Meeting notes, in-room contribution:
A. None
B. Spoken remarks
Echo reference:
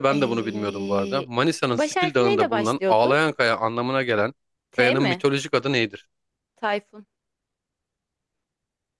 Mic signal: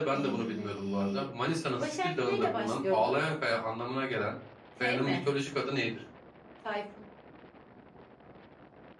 A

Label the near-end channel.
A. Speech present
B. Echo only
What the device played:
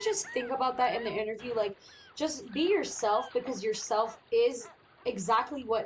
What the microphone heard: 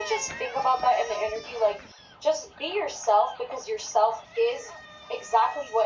B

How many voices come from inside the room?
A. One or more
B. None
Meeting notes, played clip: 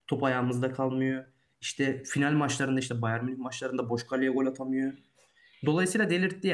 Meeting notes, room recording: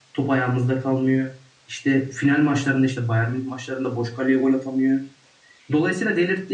B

